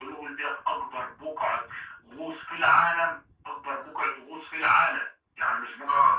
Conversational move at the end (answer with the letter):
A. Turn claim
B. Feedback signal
B